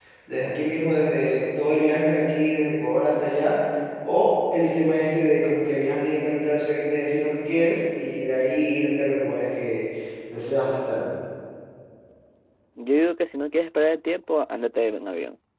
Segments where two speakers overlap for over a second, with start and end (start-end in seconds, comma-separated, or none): none